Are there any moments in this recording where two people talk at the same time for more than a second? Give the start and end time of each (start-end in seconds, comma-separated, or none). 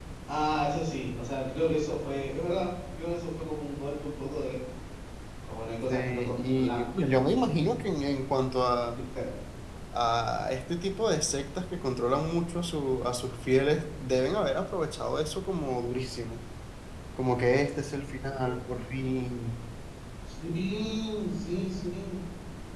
5.9-7.9